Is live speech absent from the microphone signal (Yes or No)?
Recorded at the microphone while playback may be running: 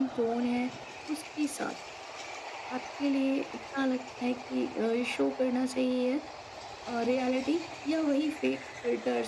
Yes